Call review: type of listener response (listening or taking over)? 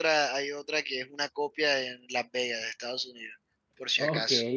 taking over